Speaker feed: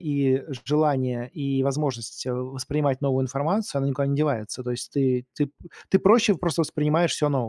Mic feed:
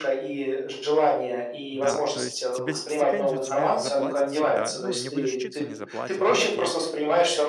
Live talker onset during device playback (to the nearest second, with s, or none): 2 s